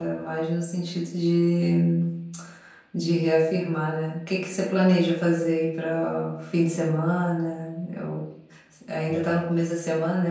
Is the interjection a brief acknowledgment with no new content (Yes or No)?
Yes